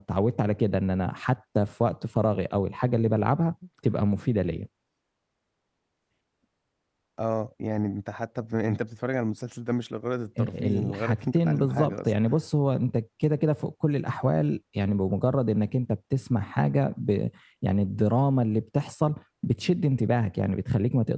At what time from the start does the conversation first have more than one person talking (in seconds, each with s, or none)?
10.4 s